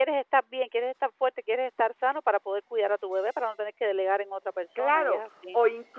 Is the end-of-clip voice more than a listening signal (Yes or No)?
Yes